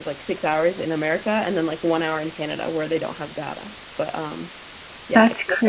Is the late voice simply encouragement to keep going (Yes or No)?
No